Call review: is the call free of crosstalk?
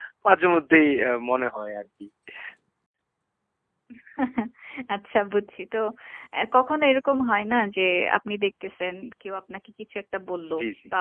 Yes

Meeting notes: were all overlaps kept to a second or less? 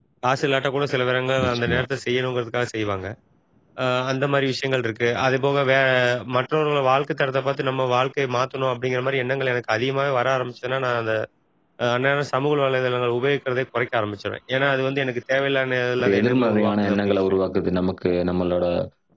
No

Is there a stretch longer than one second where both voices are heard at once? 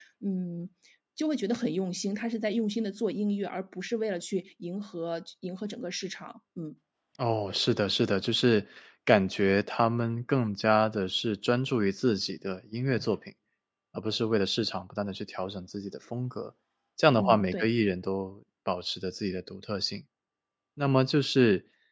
No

